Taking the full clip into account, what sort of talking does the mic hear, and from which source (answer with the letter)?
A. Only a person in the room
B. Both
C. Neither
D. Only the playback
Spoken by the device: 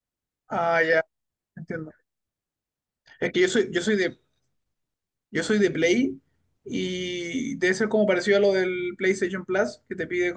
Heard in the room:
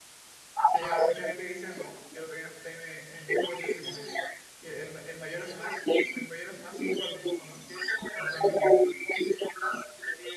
B